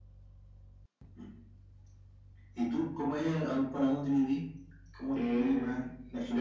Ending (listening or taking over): taking over